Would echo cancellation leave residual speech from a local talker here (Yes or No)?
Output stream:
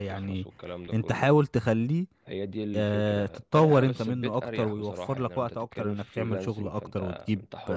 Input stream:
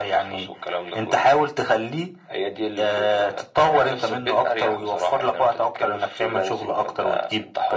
No